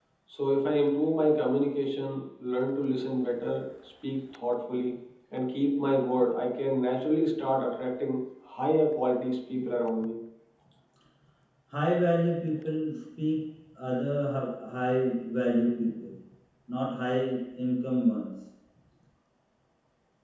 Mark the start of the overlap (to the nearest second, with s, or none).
none